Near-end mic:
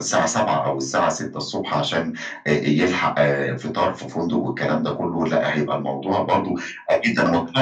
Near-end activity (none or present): none